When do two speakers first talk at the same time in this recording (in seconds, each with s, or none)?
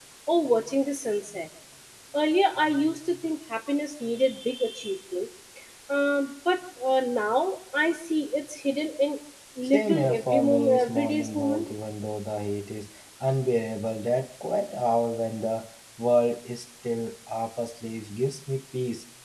9.6 s